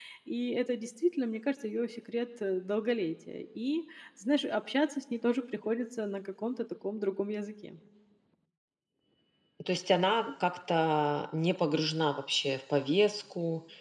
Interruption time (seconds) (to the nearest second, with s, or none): none